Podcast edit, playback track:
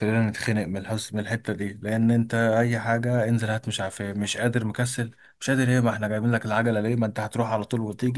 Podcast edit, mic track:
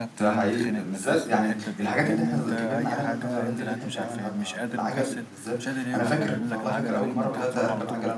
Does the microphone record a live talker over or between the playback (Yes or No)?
Yes